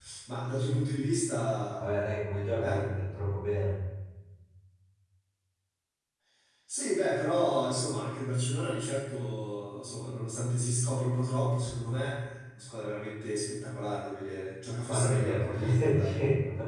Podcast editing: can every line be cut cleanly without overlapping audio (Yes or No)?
No